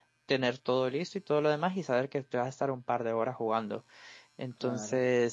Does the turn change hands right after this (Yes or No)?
No